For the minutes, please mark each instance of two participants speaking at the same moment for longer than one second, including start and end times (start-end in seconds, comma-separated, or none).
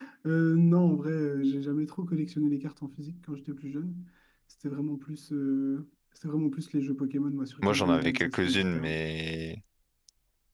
7.6-8.9